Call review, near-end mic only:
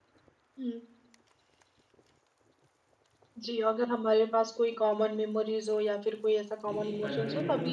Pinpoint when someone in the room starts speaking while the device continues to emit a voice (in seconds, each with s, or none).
6.7 s